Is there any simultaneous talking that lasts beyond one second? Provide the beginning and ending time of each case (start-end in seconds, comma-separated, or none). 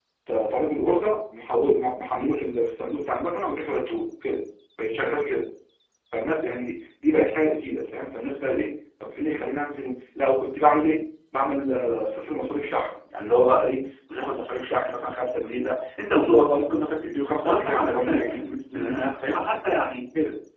17.4-19.5